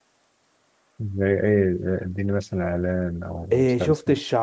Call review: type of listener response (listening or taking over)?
taking over